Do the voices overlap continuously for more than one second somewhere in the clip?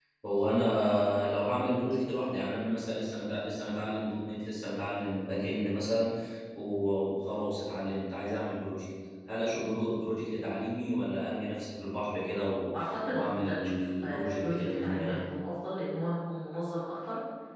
Yes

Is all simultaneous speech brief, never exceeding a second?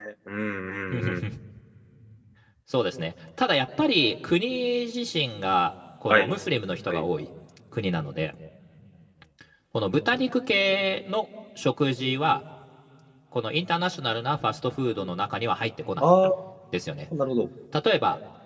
Yes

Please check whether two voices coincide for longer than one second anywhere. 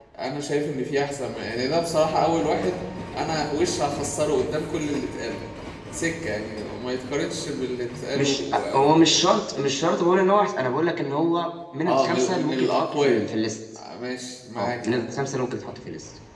Yes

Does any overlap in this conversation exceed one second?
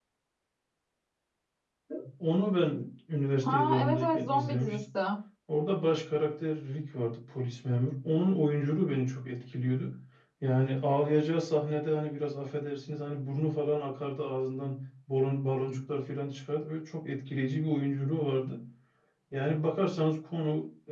Yes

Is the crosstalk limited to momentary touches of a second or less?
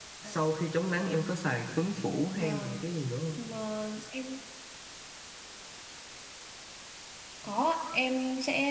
Yes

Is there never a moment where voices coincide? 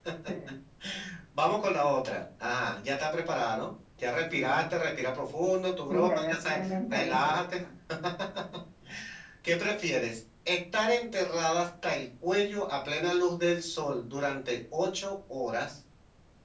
No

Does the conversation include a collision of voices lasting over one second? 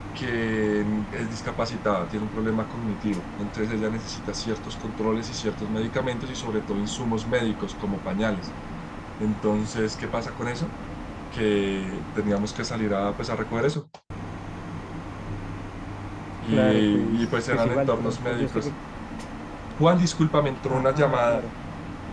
Yes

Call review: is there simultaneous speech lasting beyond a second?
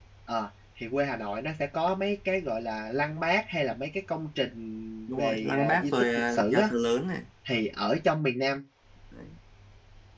Yes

